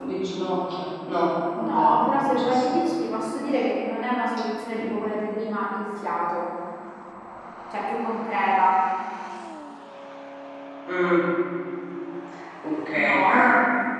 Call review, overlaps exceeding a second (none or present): present